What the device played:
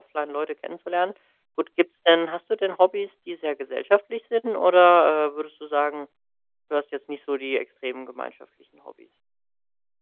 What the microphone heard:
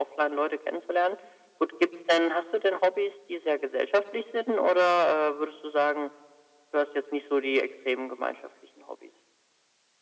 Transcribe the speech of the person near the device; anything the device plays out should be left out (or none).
none